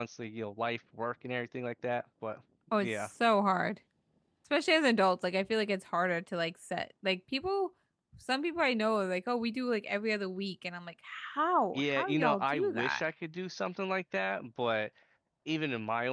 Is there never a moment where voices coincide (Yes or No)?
No